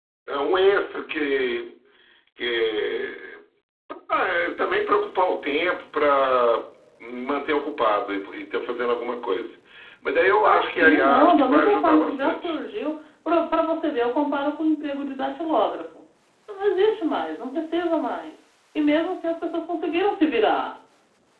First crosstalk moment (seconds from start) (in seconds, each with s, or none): 10.4 s